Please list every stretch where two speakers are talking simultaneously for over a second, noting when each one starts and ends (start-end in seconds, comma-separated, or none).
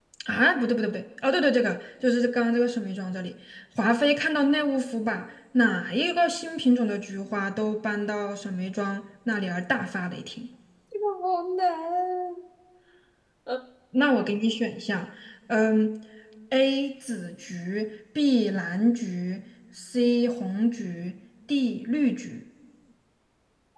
none